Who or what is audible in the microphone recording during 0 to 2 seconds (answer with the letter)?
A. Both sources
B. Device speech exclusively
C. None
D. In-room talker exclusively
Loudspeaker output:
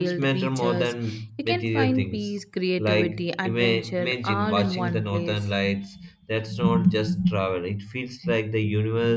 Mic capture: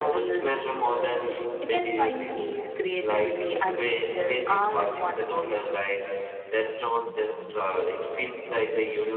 B